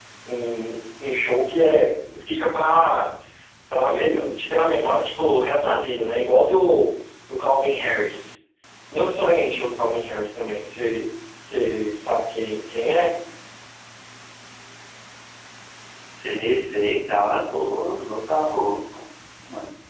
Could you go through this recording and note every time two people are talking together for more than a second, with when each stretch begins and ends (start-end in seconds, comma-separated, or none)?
none